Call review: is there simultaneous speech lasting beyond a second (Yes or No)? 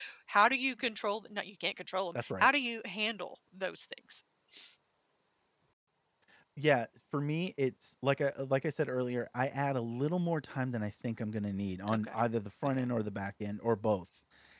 No